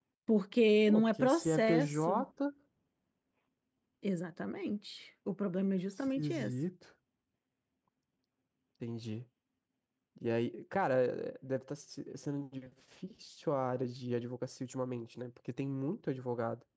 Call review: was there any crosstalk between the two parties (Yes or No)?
Yes